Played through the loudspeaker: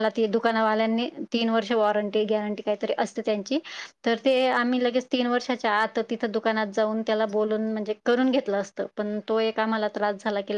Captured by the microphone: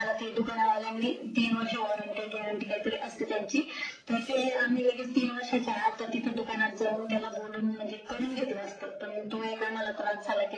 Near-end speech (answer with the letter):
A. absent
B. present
A